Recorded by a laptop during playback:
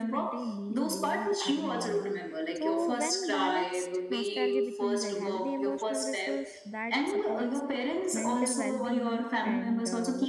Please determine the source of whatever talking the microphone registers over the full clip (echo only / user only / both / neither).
both